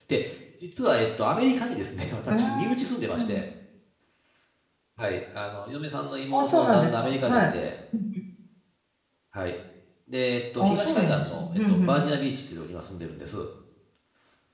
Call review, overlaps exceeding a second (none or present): present